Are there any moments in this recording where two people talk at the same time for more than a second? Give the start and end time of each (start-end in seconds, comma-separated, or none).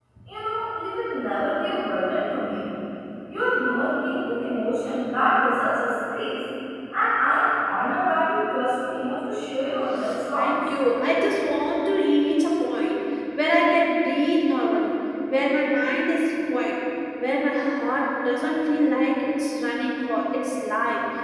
none